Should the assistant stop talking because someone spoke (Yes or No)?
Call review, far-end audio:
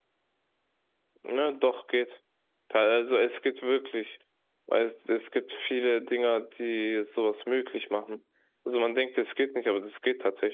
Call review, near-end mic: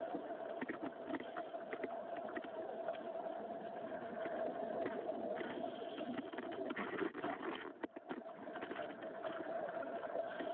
No